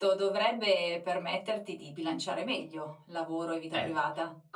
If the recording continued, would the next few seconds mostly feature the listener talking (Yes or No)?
Yes